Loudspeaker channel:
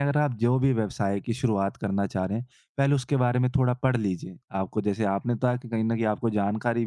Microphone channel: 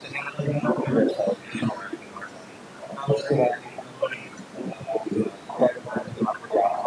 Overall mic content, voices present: echo only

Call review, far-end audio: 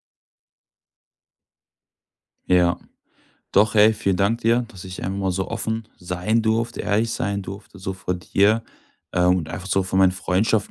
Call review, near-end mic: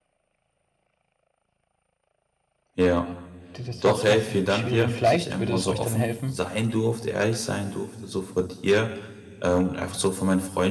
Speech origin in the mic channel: both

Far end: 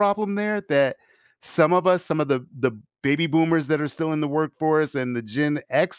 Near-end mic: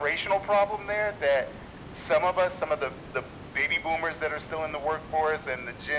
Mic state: echo only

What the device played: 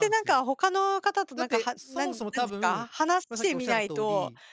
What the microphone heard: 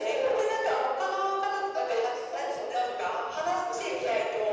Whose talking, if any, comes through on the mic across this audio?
echo only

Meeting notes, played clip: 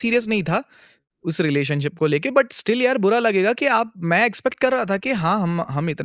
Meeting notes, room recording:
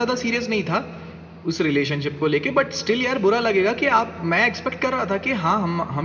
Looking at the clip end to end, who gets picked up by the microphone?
echo only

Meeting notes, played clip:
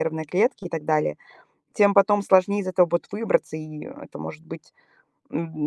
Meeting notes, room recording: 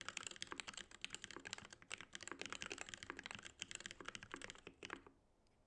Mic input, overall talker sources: neither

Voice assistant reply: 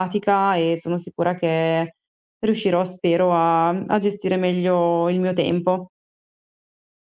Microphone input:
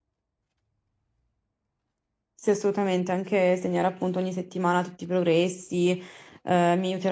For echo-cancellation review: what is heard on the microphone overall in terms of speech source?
user only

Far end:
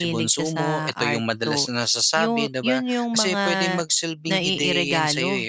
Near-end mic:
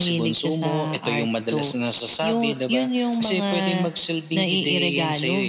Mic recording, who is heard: echo only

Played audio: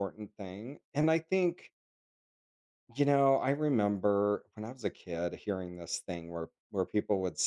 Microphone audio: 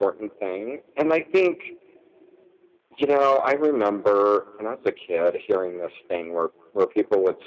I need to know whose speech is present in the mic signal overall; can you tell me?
echo only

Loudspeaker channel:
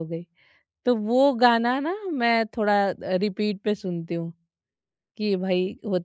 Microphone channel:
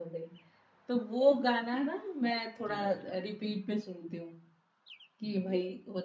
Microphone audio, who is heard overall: both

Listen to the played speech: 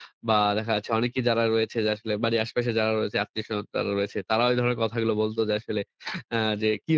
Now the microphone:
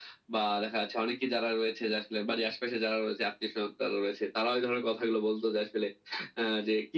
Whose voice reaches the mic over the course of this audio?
echo only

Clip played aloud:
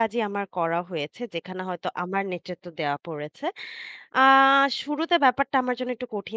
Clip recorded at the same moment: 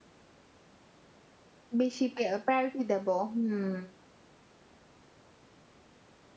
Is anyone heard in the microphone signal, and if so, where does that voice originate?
user only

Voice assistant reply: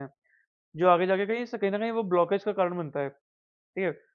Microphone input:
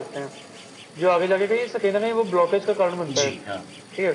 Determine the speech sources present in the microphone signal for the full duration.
both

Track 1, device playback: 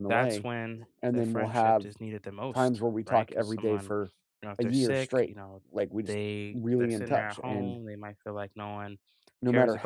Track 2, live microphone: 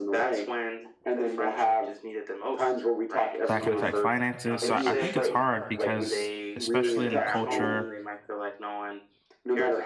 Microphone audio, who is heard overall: both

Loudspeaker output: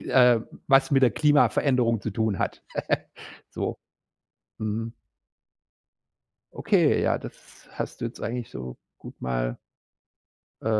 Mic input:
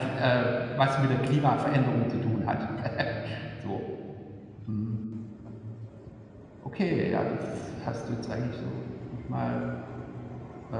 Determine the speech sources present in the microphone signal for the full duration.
echo only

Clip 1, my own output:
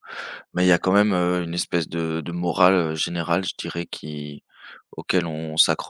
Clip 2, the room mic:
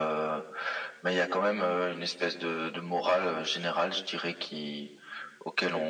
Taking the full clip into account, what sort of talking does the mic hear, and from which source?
echo only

